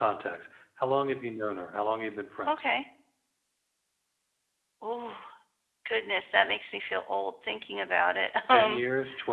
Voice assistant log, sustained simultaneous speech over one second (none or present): none